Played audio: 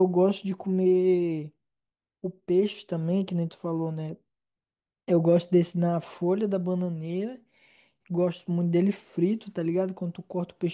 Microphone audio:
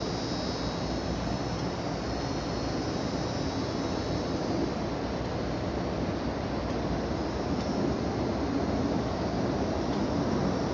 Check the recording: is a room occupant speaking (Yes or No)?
No